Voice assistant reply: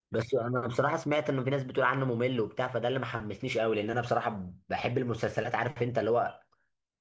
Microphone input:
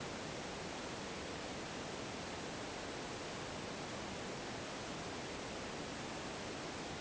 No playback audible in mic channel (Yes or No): Yes